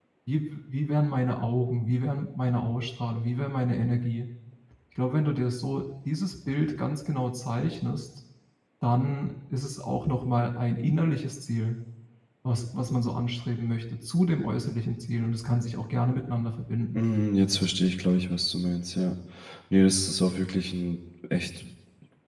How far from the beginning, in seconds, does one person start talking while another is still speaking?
none

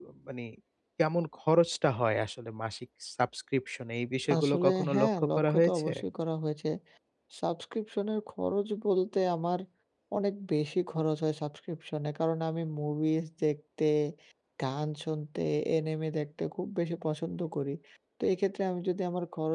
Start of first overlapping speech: 4.3 s

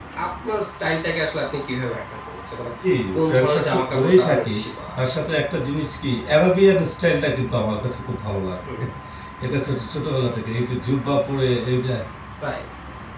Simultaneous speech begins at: 3.1 s

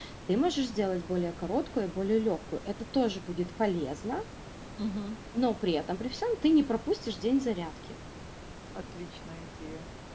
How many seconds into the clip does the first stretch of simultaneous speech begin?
none

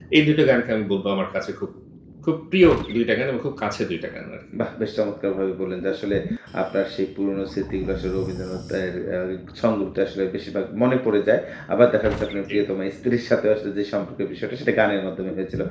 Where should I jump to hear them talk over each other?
none

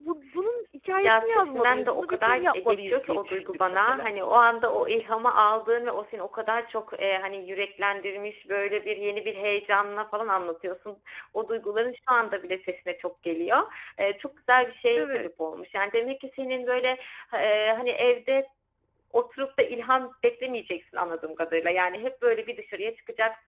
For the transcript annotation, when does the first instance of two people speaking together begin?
0.9 s

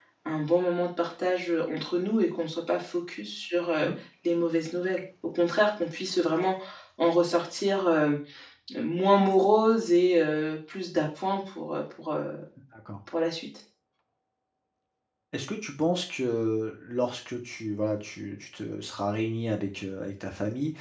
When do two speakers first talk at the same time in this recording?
none

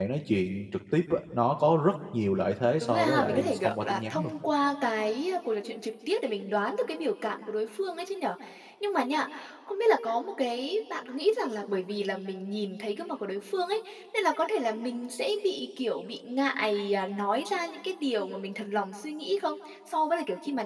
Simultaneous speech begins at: 2.8 s

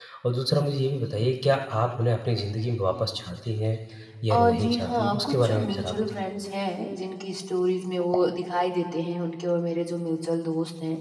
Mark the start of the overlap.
4.3 s

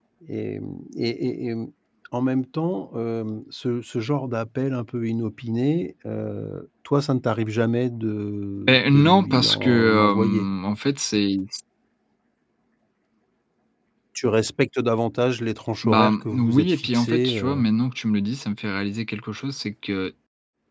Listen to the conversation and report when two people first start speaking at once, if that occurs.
8.7 s

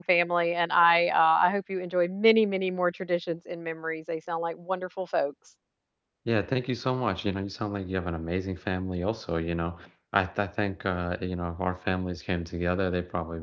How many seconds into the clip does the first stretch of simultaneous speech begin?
none

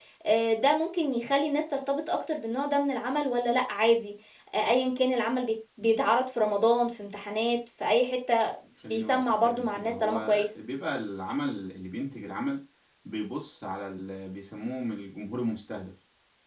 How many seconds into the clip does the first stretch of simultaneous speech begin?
8.9 s

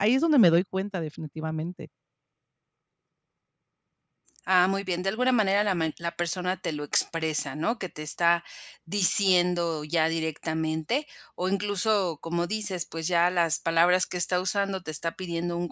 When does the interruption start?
none

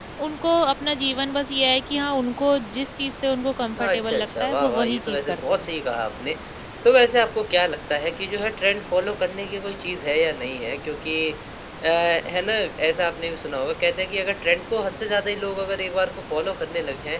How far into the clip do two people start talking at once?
3.8 s

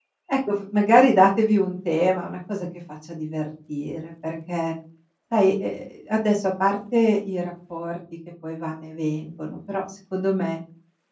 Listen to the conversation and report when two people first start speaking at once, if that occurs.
none

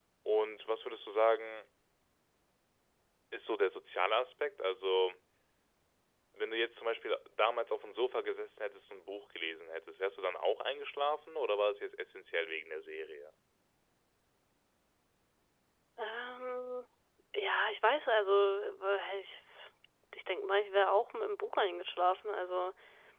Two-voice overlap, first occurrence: none

